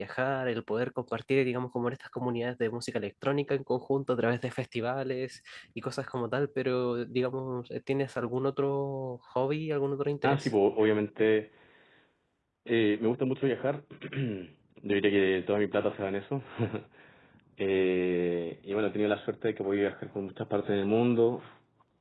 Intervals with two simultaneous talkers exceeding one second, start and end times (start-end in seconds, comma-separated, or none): none